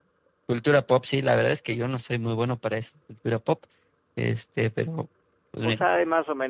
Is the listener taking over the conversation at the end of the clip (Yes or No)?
Yes